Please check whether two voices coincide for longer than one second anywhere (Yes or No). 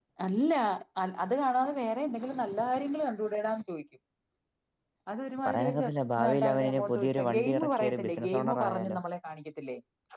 Yes